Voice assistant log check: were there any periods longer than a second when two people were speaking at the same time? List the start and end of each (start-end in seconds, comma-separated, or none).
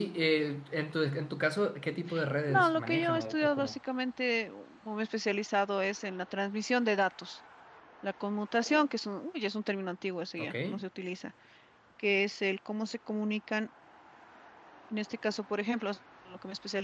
2.5-3.8